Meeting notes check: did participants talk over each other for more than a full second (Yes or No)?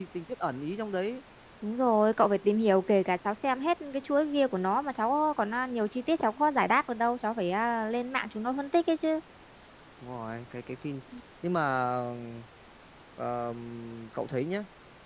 No